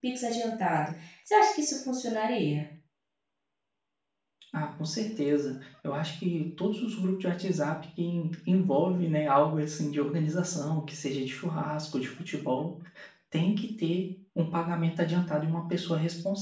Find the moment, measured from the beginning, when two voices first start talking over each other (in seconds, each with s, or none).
none